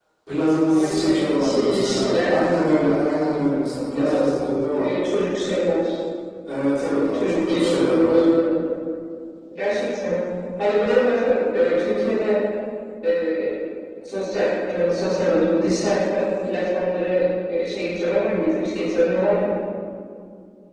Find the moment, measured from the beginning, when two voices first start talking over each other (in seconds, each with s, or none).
0.7 s